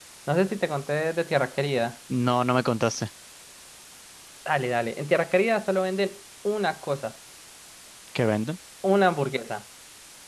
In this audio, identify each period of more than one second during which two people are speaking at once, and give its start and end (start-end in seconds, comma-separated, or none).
none